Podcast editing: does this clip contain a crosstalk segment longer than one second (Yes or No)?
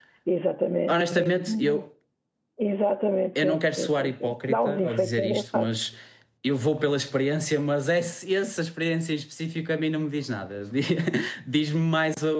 Yes